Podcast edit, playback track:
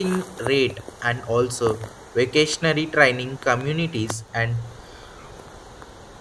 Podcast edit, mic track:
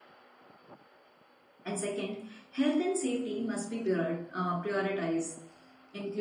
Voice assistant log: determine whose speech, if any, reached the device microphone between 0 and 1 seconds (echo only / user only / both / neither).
neither